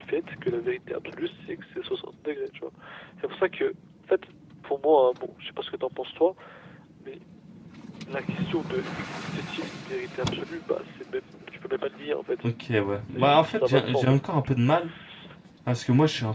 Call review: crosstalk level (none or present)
present